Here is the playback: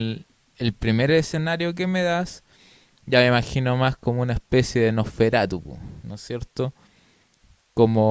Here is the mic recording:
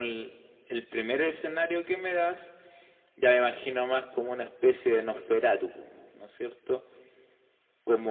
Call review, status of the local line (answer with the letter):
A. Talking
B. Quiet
B